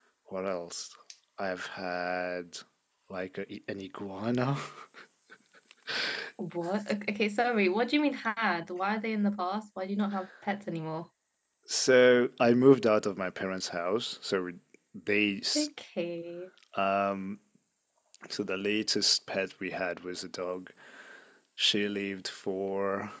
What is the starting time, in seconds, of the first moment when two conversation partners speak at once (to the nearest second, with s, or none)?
none